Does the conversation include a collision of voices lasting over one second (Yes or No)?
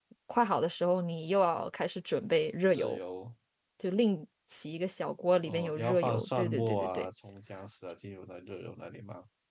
Yes